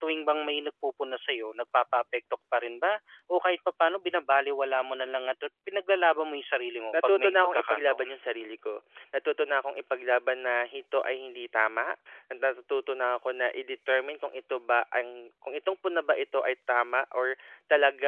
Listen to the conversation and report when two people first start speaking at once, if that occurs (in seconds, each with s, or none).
6.9 s